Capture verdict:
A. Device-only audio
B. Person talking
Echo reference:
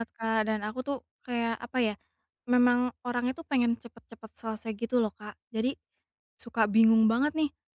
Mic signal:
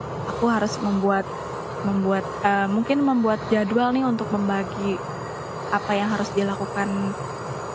B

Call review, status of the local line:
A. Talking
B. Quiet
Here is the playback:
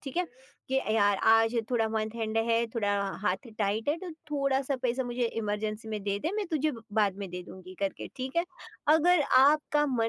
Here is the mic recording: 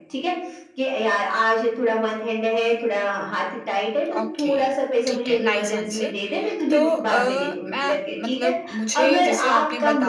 A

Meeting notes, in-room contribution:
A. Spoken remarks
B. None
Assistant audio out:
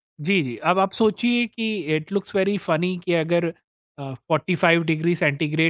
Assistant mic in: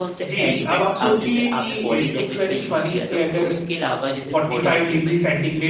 A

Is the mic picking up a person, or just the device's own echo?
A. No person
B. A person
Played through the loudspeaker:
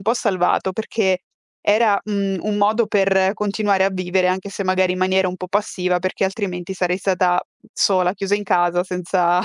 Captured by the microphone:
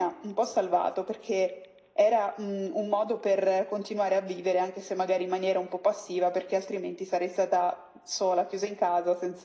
A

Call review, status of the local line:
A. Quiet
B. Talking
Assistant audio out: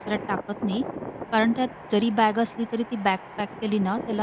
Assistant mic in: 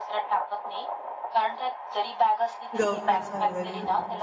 B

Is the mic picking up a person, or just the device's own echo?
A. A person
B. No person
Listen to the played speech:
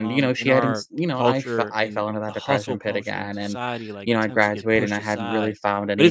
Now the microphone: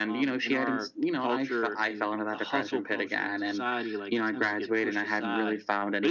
B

